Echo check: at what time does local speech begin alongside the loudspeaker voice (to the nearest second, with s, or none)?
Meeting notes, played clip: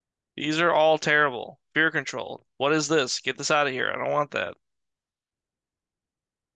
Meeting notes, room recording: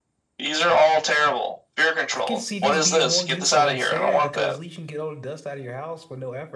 2 s